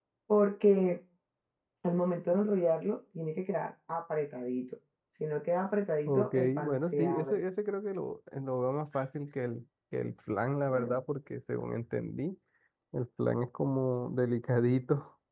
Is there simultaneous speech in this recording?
Yes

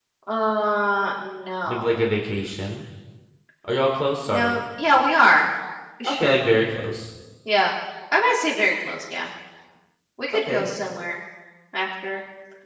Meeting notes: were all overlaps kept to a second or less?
Yes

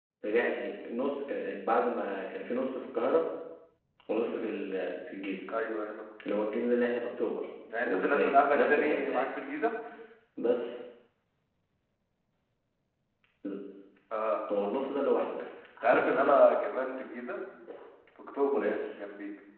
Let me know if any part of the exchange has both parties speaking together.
Yes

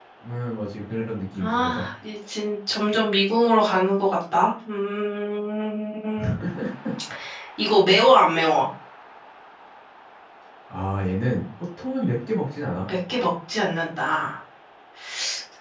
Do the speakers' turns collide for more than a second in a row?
No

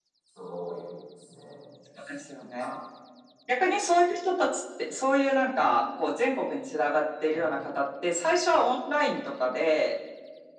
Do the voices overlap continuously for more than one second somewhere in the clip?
No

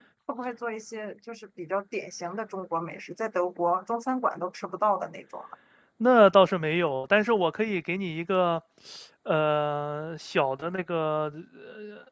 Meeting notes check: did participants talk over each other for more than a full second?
No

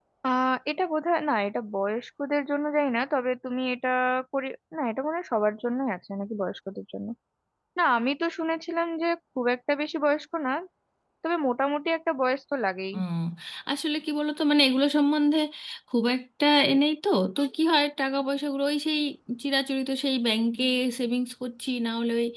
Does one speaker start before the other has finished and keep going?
No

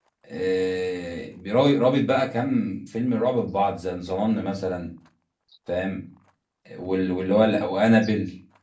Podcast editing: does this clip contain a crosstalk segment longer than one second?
No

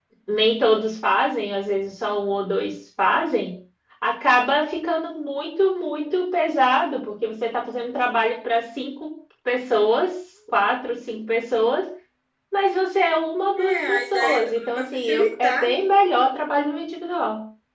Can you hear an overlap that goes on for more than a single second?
Yes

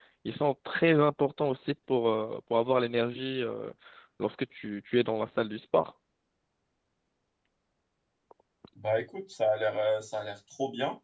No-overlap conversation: Yes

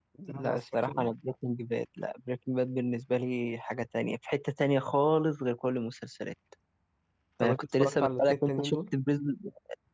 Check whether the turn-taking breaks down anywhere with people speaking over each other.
Yes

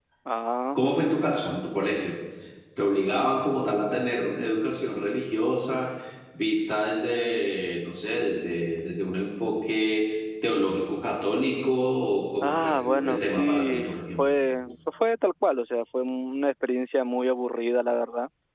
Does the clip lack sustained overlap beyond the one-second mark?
No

